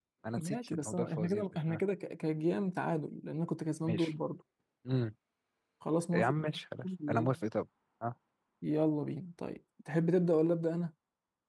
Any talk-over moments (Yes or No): Yes